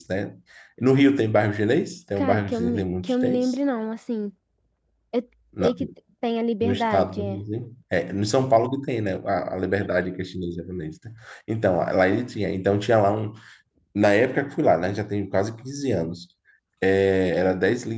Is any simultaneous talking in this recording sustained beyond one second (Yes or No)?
Yes